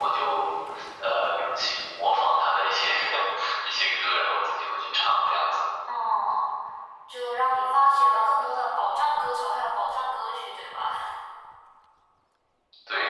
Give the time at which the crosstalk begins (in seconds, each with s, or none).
none